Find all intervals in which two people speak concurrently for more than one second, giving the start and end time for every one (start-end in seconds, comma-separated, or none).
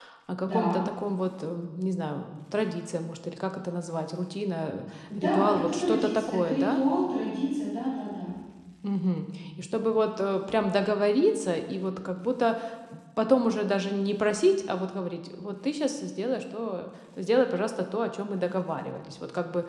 5.2-6.8